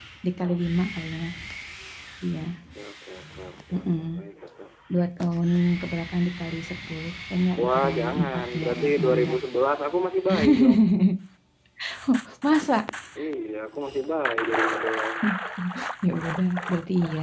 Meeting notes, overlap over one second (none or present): present